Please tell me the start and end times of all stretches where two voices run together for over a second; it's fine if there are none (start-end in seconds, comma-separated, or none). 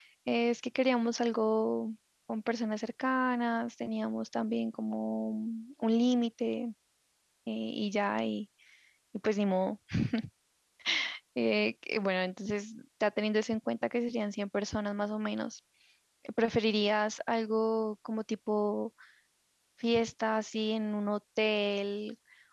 none